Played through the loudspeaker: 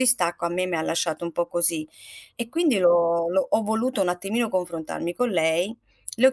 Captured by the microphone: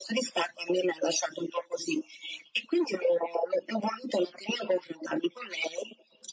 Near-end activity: none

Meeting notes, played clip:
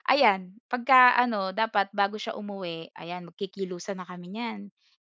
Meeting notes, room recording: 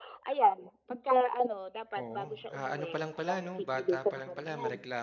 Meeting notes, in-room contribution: present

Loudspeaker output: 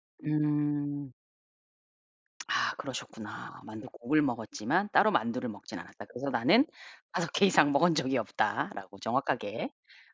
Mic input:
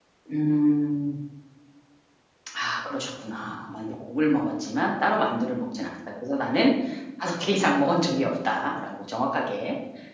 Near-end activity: none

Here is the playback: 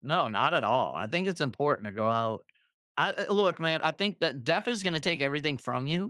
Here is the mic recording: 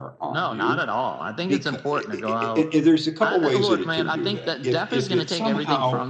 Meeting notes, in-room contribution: present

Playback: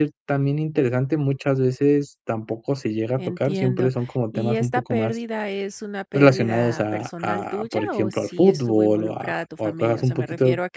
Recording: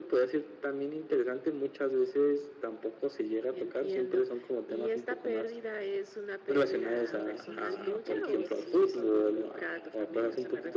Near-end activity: present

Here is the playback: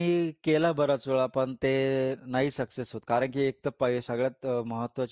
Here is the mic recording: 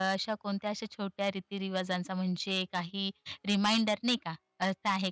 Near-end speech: present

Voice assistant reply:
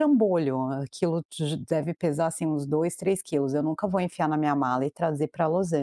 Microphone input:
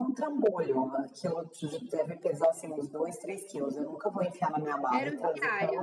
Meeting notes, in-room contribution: present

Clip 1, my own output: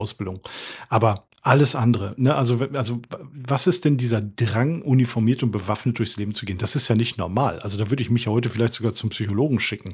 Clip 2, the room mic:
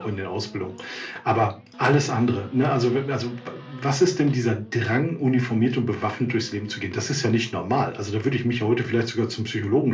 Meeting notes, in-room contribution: none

